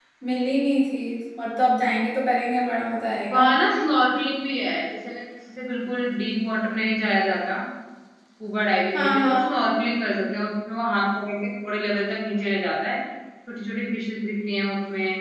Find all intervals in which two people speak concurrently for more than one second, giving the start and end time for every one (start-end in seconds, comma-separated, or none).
none